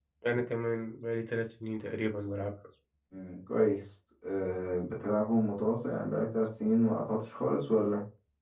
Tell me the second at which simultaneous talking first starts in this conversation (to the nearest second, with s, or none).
none